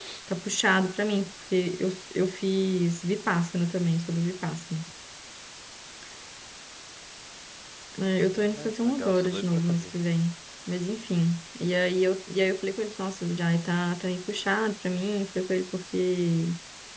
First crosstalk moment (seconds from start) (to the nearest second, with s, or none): 8 s